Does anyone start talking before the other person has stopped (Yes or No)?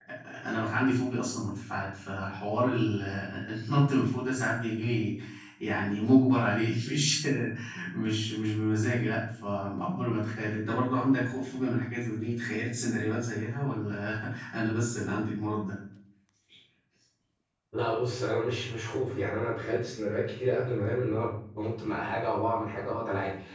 No